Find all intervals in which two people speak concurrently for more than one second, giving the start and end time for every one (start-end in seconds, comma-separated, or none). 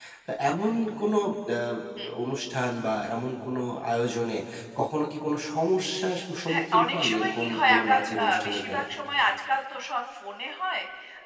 6.5-8.8